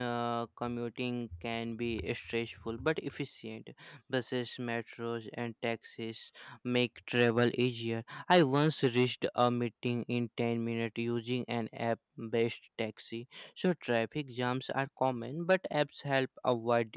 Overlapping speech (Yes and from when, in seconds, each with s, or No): No